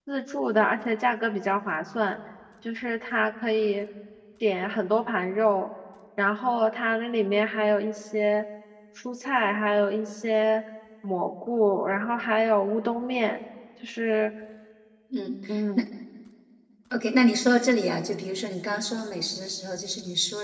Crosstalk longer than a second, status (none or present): none